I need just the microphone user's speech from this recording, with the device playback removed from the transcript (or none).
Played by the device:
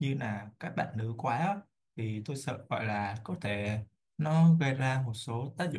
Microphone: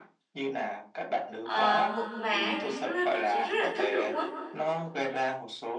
ờ, mượt mà thì lúc đó bạn sẽ rất là thích luôn á